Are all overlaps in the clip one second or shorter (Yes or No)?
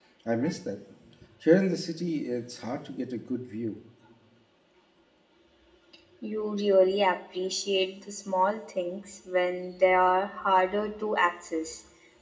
Yes